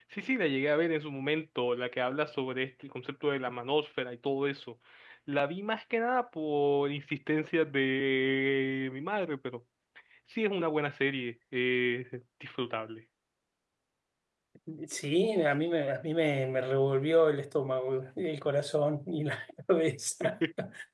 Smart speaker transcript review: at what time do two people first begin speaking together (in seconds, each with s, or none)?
none